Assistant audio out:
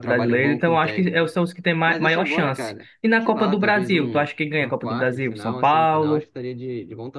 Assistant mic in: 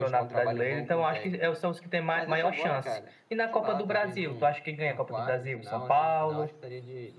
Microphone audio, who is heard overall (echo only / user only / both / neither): echo only